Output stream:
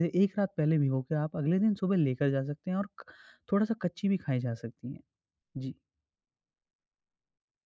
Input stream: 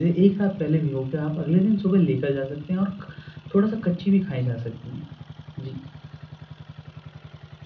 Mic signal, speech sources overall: echo only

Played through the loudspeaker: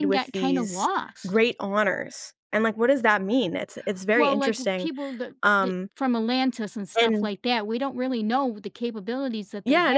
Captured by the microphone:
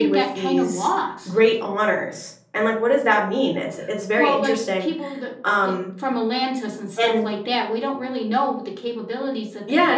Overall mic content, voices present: echo only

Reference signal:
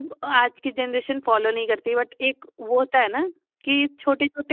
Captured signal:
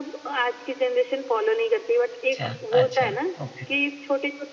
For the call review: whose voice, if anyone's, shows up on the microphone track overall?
both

